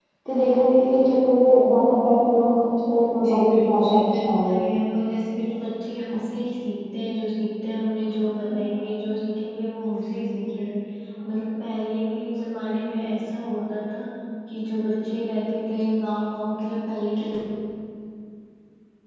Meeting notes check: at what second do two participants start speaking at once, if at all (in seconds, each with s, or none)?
3.2 s